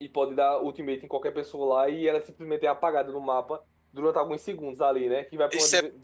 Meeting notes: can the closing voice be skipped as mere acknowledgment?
No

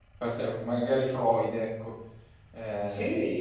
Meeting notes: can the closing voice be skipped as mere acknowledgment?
No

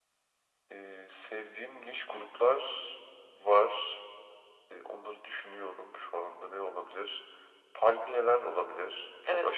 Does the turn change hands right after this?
Yes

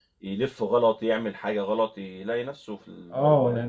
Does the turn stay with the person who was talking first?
No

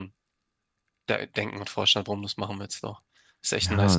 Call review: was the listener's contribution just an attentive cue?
No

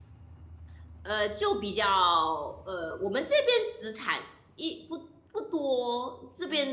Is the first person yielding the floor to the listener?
No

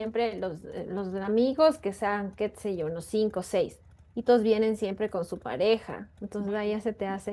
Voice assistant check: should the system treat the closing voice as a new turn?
No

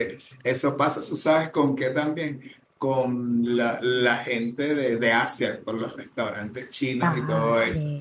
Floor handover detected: No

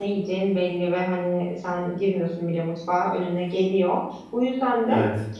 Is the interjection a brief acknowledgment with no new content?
Yes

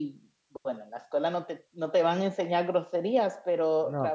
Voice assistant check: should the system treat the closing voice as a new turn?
No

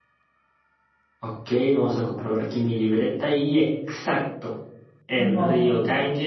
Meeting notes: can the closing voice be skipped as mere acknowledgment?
Yes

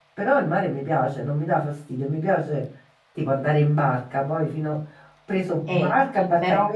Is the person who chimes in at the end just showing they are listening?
Yes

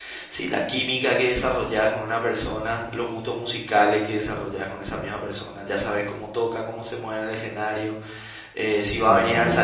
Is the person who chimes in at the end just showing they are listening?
Yes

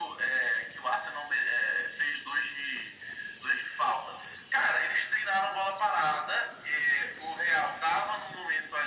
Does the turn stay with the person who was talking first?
Yes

